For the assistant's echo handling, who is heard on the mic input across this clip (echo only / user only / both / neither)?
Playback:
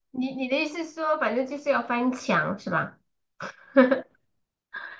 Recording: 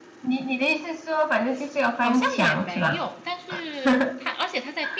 both